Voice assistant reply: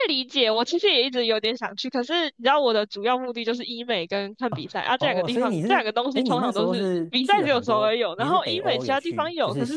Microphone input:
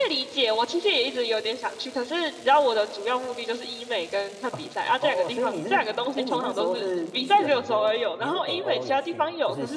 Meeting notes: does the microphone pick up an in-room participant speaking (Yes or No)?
No